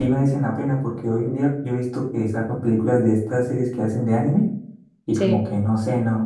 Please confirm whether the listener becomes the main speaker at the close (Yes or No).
No